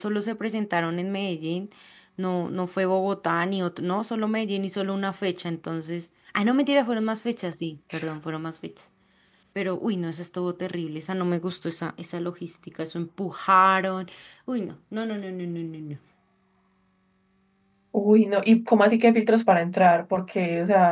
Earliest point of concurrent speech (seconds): none

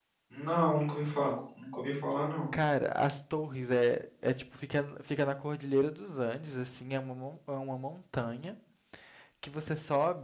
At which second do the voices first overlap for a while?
none

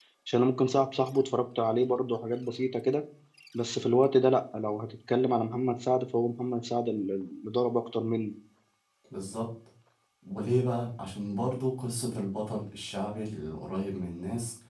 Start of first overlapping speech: none

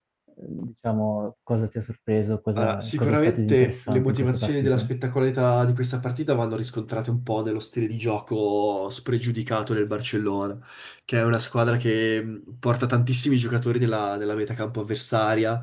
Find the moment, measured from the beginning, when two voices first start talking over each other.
2.6 s

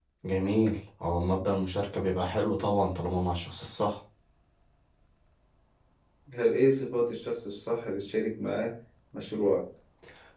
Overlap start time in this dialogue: none

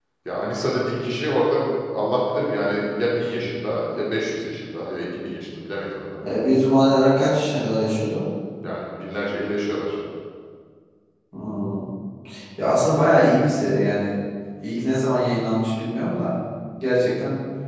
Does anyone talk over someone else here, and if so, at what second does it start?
none

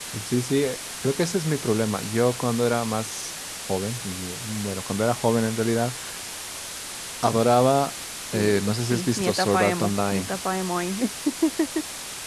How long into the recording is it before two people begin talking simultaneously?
8.3 s

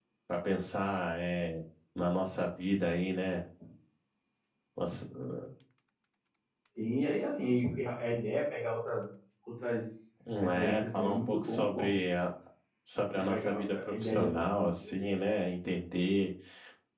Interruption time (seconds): 10.4 s

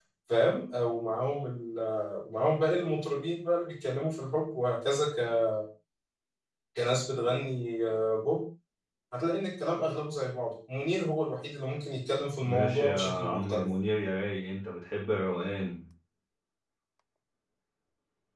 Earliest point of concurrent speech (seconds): 12.4 s

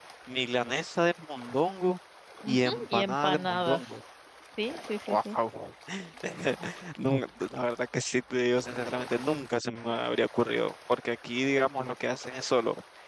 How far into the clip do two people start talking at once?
2.5 s

